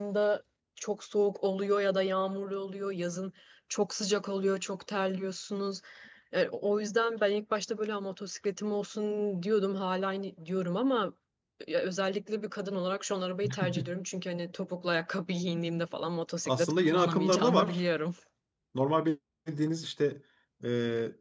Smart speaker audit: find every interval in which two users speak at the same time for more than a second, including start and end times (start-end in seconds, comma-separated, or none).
16.5-17.8